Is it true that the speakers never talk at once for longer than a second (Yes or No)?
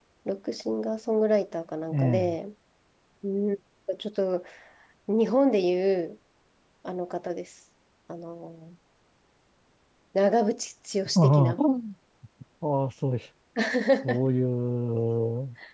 Yes